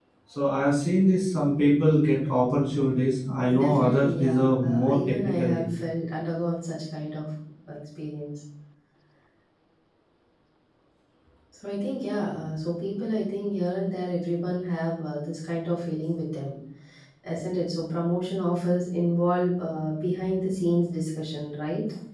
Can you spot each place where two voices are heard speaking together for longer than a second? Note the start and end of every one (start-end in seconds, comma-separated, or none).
3.5-5.7